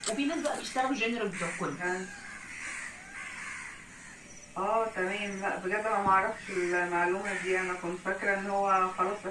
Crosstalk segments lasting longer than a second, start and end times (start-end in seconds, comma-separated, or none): none